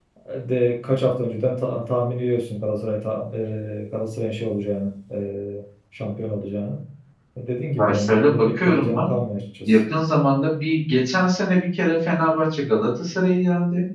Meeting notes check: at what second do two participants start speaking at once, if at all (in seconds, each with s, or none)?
7.8 s